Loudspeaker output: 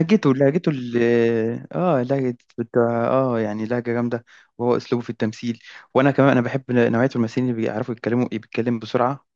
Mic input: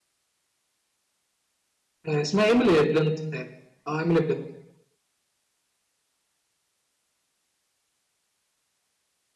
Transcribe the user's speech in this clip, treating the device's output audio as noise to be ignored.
آه، اسمها ايميلي بلنت تاني اه ايميلي بلنت

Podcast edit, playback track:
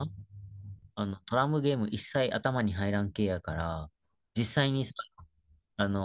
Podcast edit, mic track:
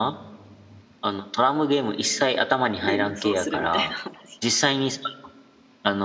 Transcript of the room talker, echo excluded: で無双するみたいな話。

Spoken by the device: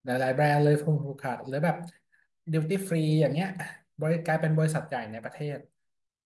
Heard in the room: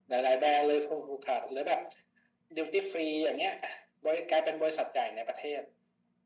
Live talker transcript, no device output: none

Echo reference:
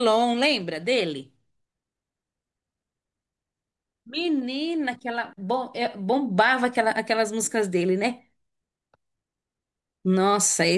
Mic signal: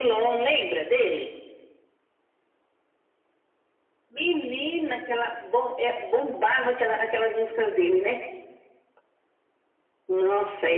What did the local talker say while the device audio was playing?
none

